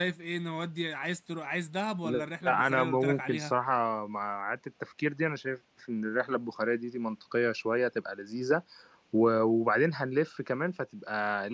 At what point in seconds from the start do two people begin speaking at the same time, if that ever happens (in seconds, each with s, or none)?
2.0 s